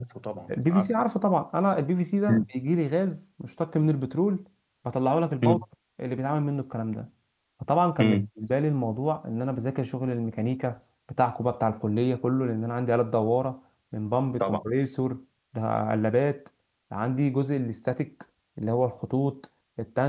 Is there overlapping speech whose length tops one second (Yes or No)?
No